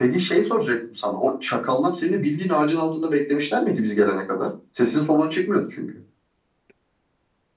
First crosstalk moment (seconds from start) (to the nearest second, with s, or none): none